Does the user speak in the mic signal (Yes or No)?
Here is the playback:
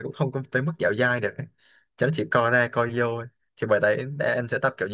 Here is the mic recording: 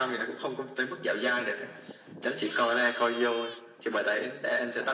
No